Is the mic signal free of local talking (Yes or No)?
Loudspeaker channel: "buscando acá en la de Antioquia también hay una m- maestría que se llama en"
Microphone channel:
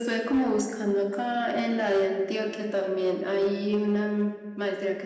Yes